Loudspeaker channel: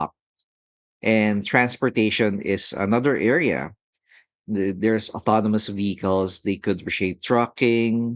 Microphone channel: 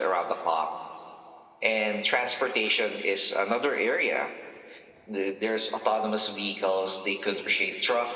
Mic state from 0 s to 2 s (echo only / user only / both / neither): echo only